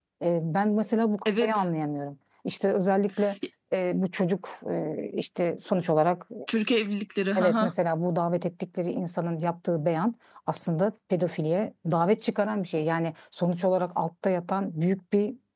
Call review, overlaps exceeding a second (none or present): none